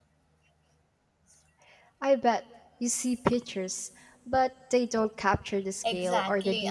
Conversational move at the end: taking over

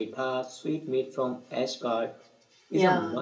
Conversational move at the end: listening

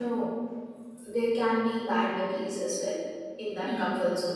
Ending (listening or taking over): listening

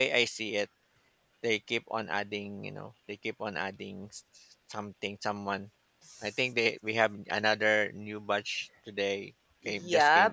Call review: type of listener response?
taking over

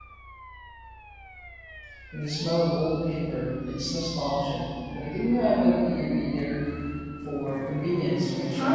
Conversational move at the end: taking over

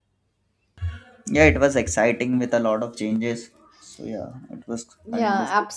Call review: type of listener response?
taking over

